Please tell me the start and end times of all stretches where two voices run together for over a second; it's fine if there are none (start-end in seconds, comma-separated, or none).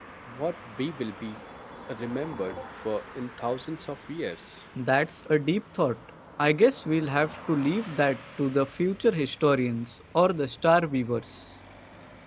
none